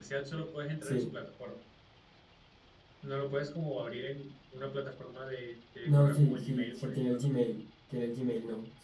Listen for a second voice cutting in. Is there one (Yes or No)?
Yes